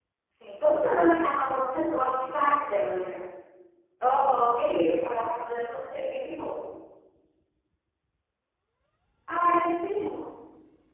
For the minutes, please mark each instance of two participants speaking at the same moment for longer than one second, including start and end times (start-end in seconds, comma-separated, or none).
none